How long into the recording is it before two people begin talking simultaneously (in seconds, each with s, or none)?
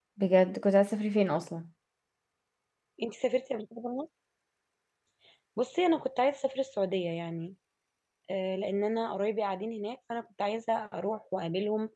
none